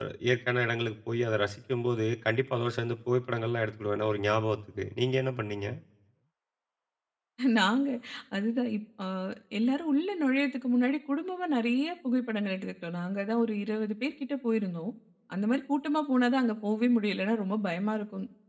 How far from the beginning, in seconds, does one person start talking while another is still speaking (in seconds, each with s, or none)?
none